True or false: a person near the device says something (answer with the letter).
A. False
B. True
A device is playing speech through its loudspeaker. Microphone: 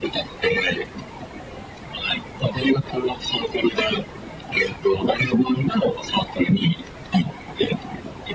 A